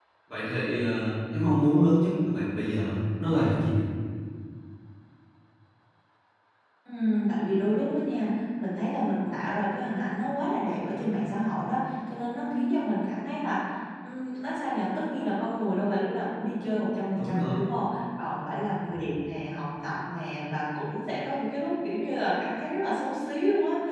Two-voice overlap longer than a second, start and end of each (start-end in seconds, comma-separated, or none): none